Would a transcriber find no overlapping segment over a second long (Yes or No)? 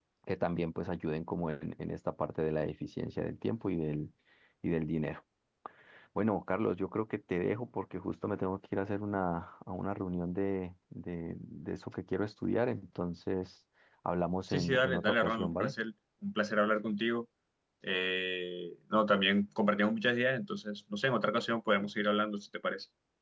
No